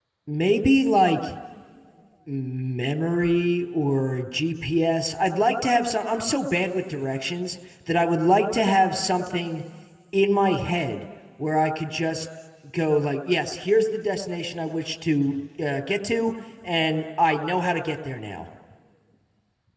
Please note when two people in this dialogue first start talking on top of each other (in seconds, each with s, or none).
none